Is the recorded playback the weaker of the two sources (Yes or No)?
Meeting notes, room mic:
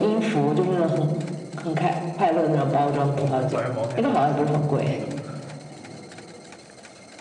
No